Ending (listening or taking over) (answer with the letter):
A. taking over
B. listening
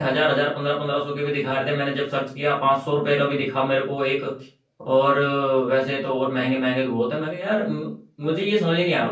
B